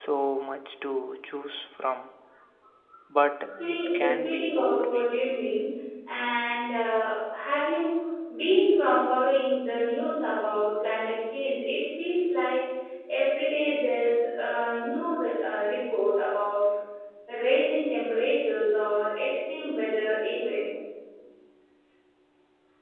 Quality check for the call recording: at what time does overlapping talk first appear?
3.6 s

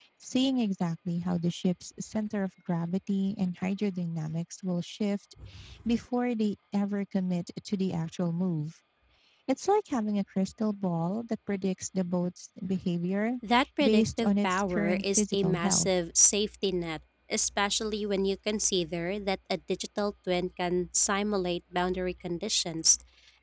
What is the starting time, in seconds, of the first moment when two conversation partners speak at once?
13.8 s

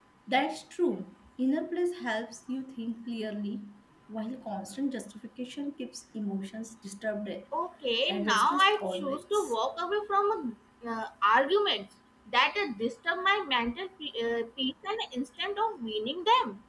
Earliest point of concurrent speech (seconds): 8.1 s

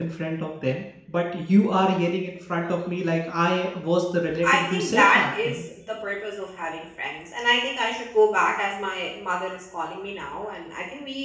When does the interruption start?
4.4 s

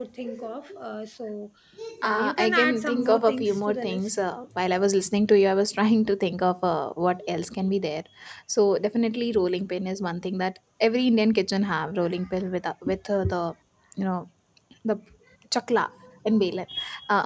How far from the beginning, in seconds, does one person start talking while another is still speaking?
2.0 s

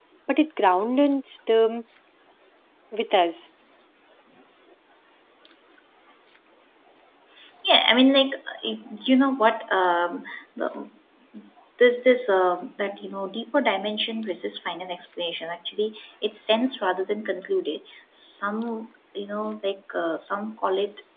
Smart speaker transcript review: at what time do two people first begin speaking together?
none

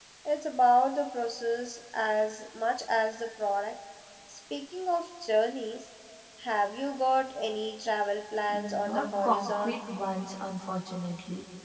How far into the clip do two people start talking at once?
8.5 s

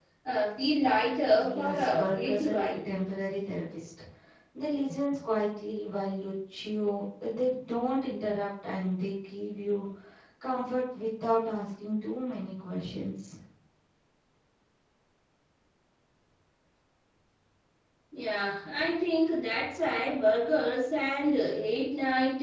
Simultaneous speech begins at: 1.4 s

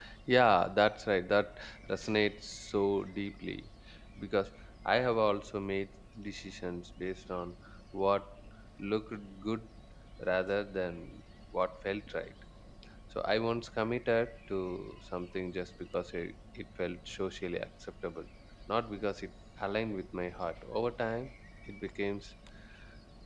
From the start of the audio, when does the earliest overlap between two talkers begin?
none

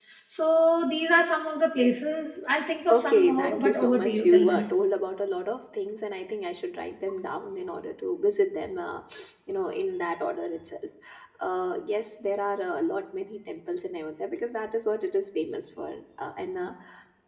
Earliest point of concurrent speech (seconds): 2.9 s

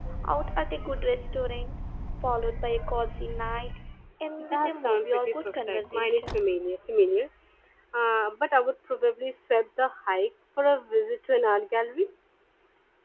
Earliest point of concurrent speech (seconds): 4.4 s

